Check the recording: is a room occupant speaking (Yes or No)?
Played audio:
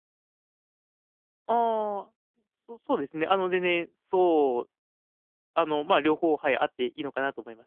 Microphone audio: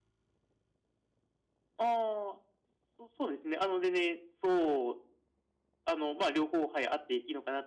No